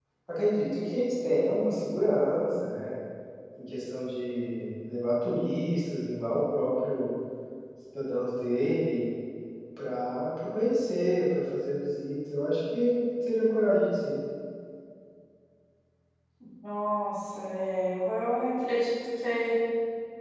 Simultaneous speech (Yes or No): No